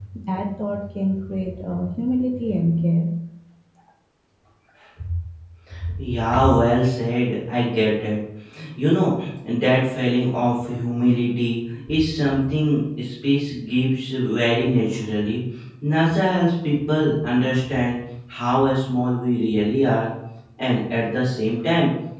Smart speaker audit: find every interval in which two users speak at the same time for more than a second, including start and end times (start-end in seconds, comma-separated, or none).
none